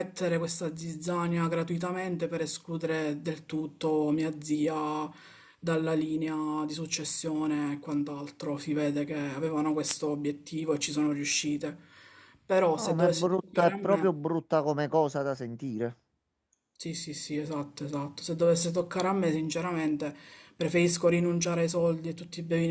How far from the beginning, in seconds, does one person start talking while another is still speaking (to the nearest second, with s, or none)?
13 s